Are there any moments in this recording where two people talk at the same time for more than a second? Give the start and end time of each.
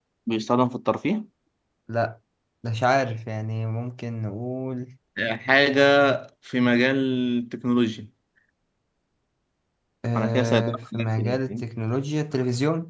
10.2-11.6

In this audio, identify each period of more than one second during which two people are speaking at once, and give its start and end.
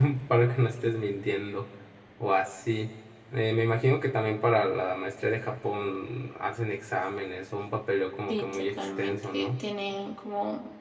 8.3-9.5

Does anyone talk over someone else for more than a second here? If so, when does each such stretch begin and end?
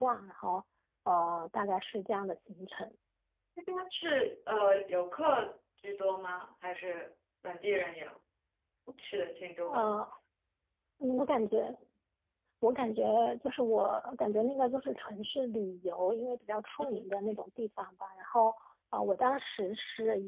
none

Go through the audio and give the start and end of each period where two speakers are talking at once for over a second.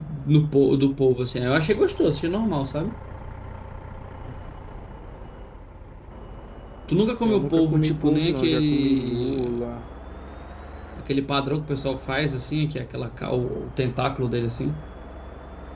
7.2-9.6

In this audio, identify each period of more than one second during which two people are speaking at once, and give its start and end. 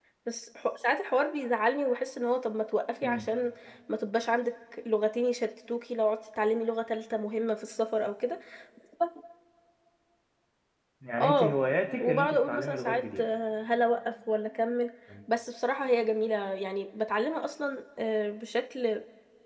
12.0-13.2

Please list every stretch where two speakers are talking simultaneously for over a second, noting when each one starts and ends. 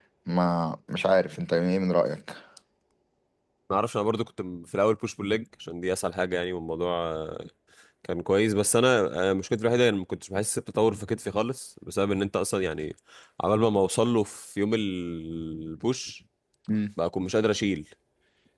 none

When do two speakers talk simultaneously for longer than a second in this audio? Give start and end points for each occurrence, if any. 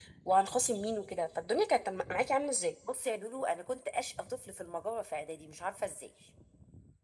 none

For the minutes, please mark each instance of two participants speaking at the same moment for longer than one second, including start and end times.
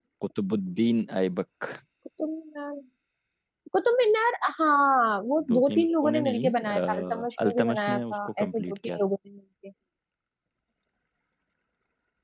5.5-9.0

